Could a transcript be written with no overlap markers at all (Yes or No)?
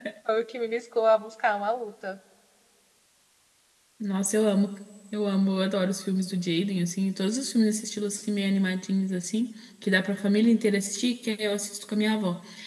Yes